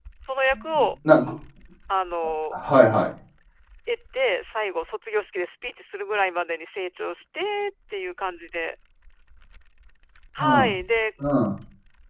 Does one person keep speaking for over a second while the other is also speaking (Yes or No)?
No